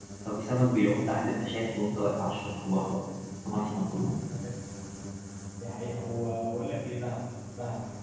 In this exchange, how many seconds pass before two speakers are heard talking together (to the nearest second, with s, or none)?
none